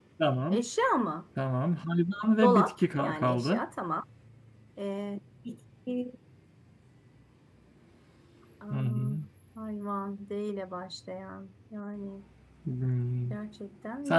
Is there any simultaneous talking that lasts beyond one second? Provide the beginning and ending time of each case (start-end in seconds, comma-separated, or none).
2.4-3.6